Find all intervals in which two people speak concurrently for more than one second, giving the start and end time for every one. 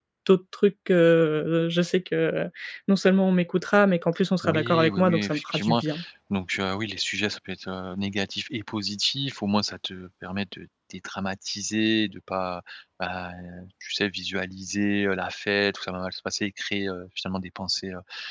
4.4-5.8

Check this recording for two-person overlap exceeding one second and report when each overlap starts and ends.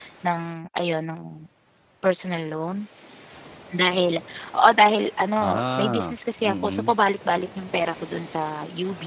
5.4-6.9

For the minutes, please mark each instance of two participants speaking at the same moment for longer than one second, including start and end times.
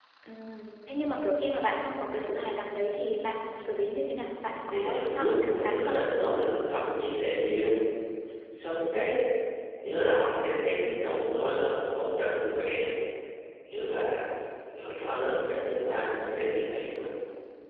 4.7-6.0

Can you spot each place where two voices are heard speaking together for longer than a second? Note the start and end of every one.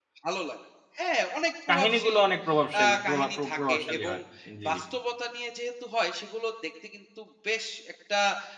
2.8-4.1

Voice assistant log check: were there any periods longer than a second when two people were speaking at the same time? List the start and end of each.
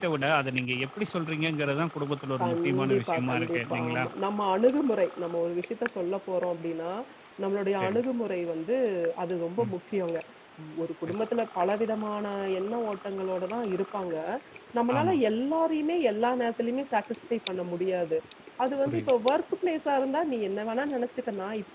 2.4-4.0

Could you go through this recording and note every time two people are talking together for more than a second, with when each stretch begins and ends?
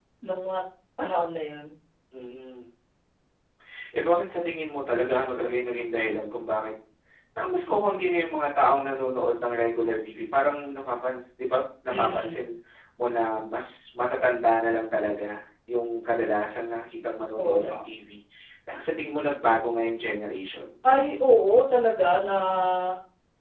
none

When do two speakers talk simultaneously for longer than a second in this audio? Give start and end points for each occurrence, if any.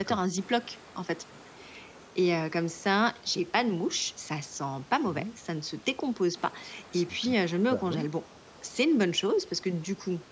none

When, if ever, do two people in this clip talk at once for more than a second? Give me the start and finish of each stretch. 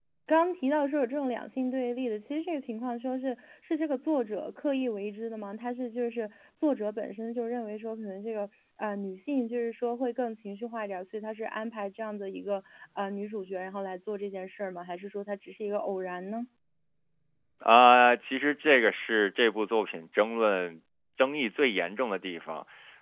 none

